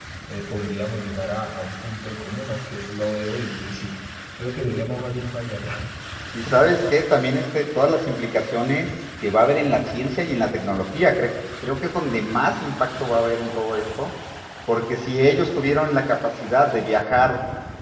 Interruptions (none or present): none